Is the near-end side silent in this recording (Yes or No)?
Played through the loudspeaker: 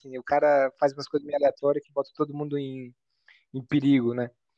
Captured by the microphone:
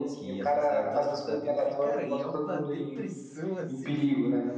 No